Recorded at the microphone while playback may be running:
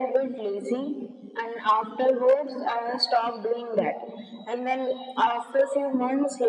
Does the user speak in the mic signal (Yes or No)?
No